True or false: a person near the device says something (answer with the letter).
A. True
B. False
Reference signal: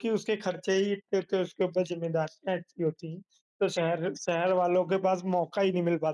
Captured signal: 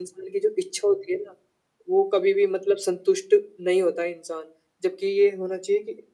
A